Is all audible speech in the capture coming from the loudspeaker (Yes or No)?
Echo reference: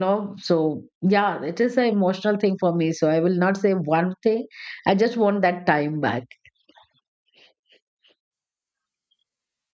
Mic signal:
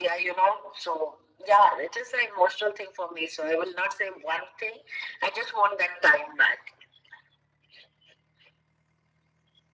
Yes